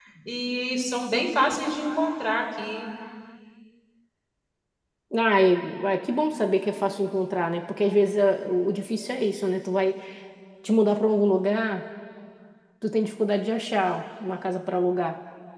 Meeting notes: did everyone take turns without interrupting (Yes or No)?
Yes